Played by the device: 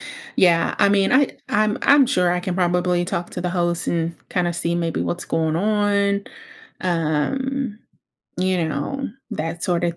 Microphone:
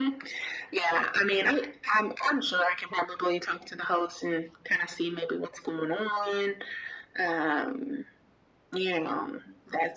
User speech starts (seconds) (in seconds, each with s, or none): none